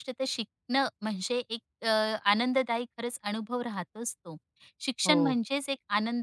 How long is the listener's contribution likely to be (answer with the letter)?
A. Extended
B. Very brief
B